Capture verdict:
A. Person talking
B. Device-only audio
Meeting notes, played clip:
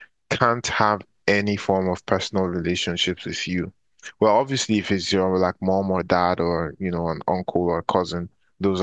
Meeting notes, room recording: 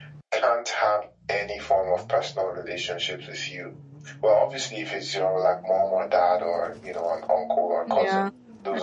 A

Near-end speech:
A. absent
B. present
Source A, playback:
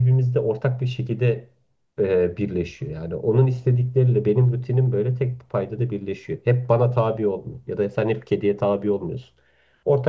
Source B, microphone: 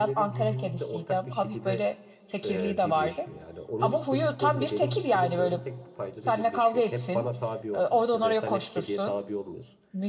B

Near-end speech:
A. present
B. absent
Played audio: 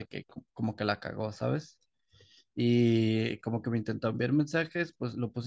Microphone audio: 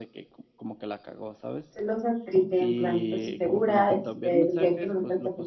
A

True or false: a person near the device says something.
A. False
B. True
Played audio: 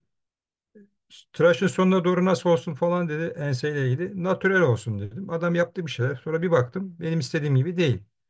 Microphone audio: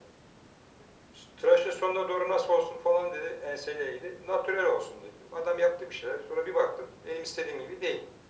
A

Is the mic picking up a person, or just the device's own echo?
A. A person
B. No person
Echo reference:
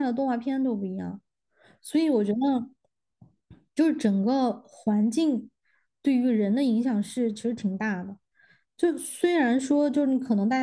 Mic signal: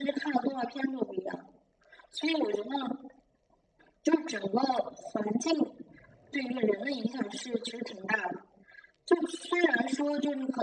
B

